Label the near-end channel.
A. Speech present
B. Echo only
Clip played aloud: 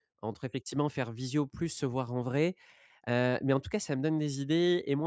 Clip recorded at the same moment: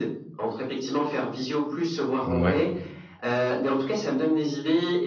A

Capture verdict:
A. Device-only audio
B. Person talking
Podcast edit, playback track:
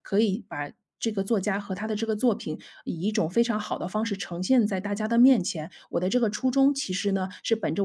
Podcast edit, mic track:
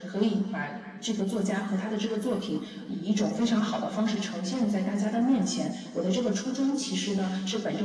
A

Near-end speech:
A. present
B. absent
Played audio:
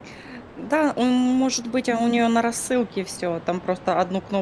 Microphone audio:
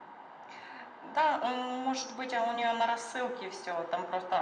B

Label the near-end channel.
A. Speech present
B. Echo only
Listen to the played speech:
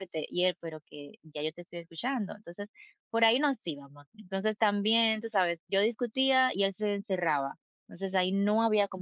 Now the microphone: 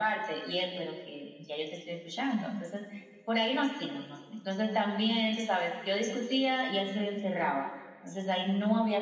B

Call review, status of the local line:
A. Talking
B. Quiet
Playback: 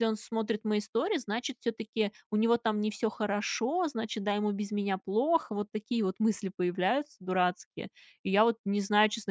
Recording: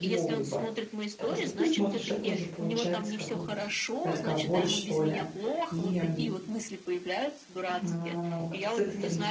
A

